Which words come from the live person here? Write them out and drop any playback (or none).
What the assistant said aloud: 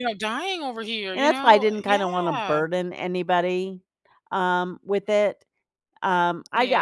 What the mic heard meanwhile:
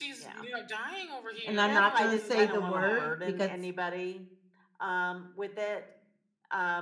and I'm not gonna say the word because,